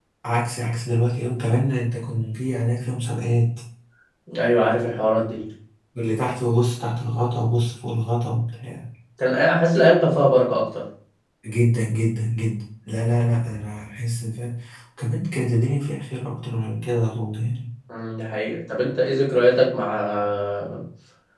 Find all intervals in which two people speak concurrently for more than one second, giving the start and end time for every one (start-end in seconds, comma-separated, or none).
none